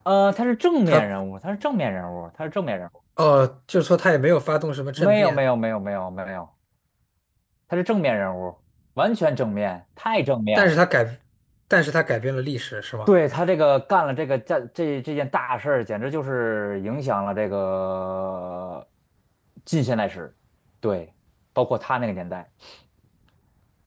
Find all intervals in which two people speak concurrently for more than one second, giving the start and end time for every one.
none

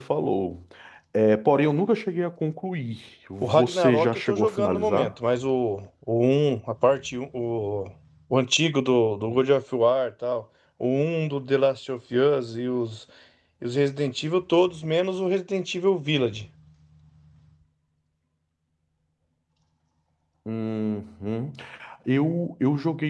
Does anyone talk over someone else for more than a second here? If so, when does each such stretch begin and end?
3.4-5.1

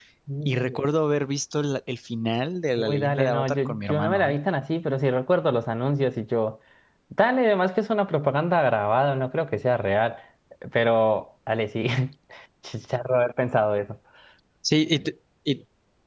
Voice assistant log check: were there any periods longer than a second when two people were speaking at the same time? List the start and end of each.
2.8-4.4

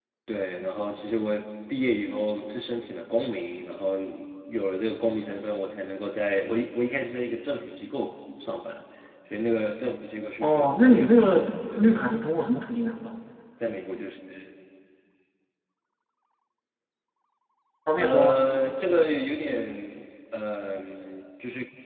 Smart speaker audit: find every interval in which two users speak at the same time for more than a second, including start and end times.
10.4-11.9

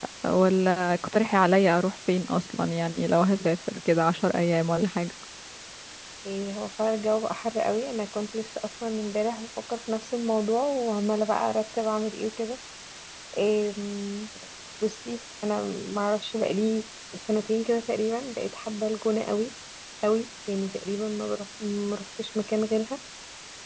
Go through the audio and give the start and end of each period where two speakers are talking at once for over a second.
none

